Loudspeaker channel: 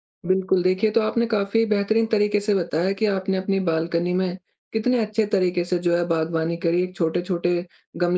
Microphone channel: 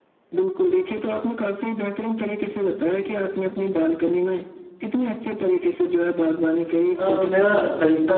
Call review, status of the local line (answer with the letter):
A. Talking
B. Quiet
A